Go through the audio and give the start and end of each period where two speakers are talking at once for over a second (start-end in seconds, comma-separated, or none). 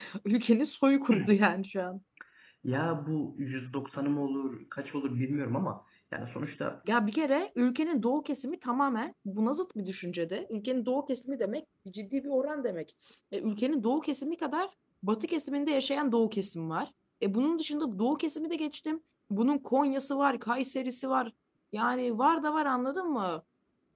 none